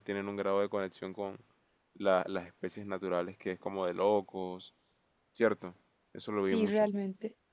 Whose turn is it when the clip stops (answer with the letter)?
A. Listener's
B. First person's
A